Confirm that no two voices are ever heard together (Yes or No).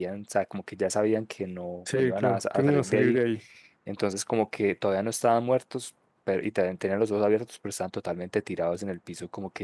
No